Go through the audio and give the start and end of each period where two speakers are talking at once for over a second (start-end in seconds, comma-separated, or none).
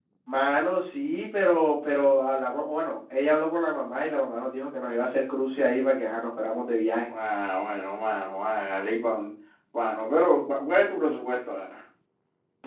none